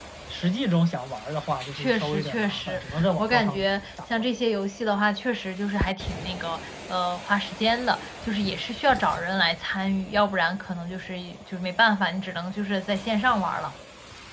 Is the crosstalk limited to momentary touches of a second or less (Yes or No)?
No